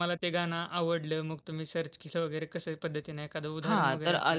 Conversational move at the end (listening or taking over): taking over